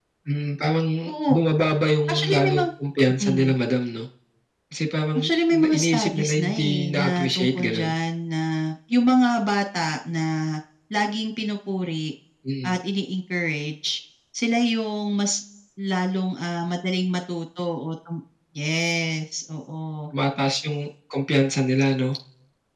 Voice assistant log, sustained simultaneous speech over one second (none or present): present